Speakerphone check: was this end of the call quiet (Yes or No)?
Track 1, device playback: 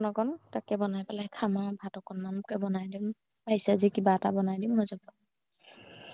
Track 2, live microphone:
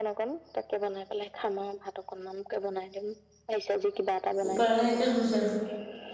No